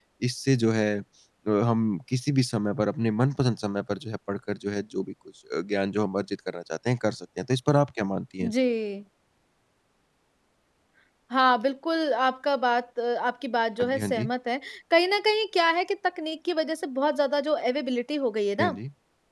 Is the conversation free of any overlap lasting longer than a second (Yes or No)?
Yes